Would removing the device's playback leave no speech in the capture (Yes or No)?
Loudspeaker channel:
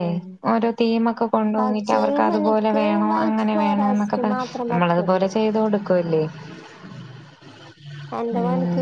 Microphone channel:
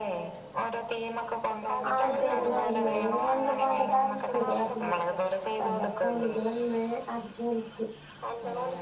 No